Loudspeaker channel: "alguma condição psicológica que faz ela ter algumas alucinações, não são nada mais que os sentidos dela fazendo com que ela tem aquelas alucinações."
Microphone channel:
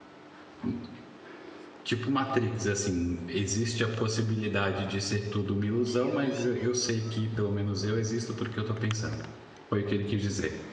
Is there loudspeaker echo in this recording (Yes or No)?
No